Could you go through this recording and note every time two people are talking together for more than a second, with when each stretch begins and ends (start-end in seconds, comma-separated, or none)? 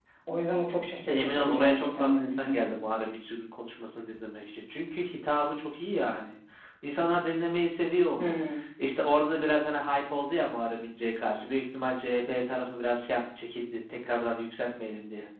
1.0-2.6